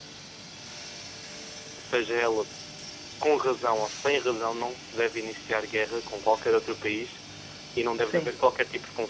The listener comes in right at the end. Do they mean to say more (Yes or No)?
No